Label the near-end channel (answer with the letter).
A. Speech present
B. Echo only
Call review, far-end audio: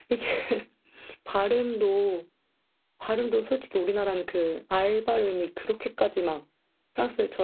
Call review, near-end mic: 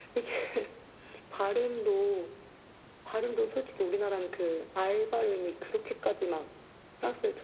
B